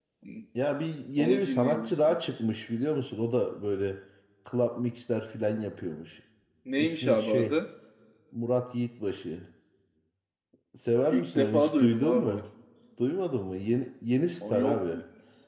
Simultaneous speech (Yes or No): Yes